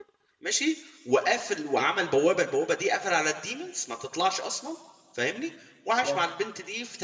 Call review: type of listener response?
listening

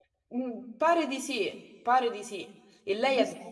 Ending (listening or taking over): listening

